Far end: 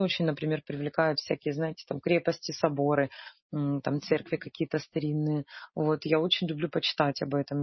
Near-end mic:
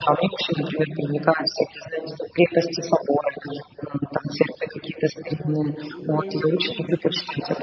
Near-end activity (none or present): present